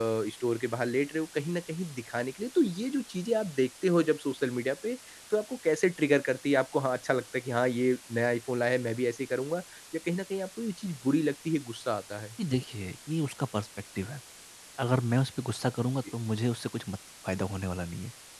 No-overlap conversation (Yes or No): Yes